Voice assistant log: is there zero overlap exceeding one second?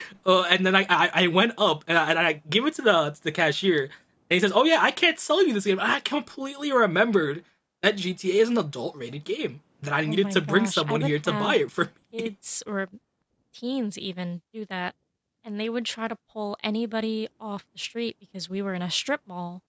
No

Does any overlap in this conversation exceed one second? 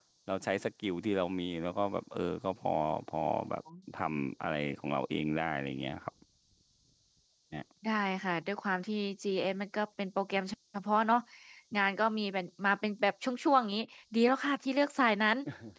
No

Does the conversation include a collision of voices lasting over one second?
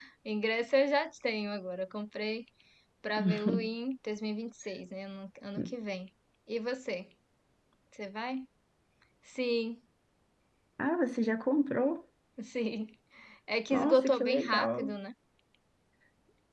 Yes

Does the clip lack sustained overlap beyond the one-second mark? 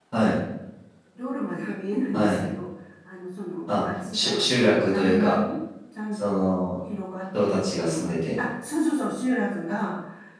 No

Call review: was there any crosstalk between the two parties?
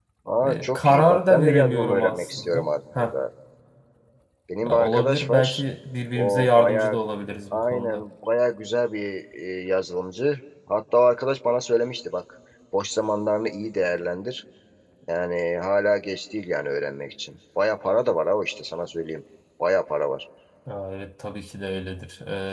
Yes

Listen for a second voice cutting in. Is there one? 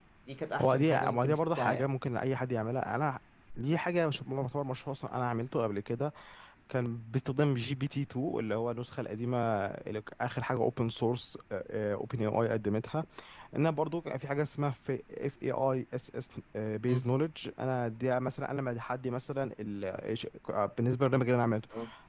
Yes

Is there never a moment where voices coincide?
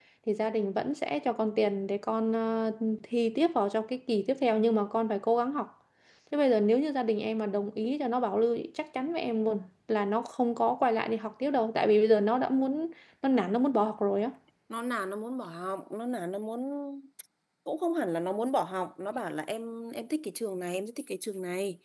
Yes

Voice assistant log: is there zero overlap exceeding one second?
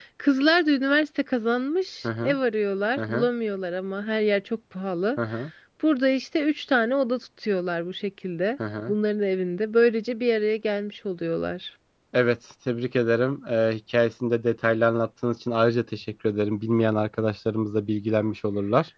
Yes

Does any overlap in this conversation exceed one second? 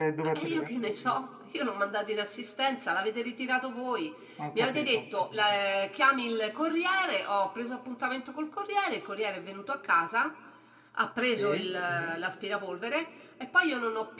No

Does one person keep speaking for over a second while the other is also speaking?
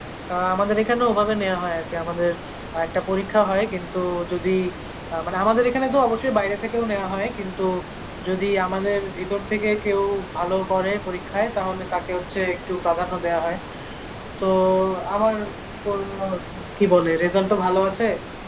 No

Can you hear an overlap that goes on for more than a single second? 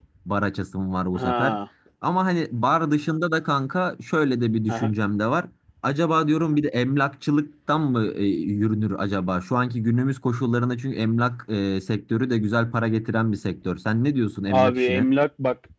No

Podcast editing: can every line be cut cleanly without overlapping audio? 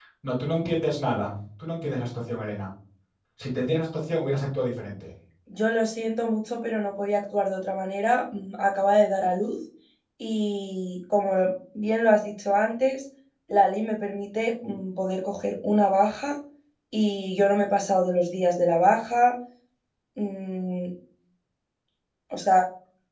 Yes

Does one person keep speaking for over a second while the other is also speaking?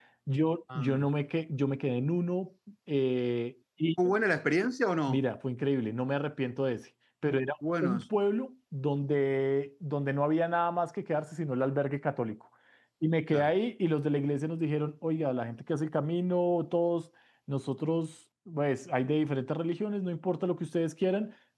No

